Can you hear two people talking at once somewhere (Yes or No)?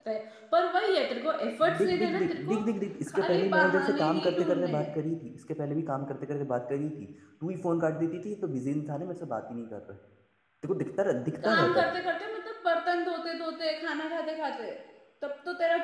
Yes